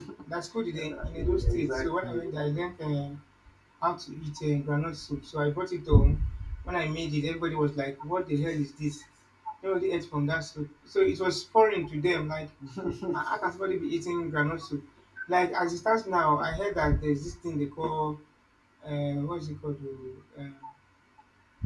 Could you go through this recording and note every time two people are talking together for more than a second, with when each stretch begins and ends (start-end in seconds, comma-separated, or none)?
0.8-2.2